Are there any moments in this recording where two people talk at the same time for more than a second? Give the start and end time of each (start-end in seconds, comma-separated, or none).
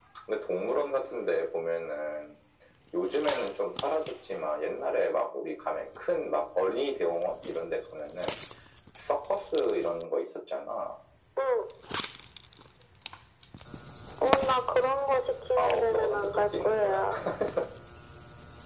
15.6-17.1